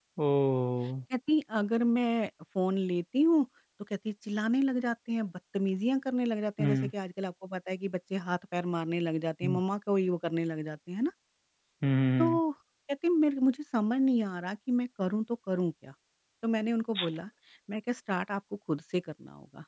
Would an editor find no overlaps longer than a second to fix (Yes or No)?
Yes